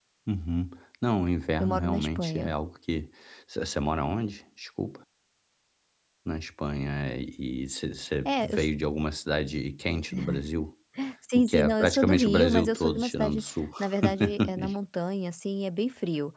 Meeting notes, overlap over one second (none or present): present